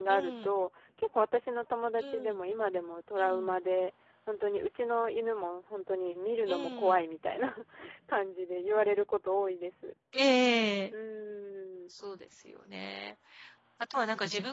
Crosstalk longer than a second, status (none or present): none